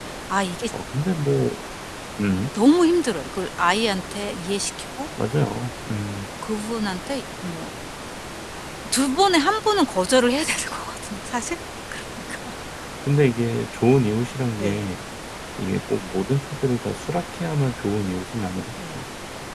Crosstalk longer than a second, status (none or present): none